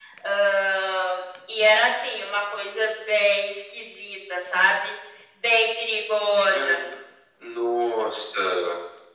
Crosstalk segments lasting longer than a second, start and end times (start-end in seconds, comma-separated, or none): none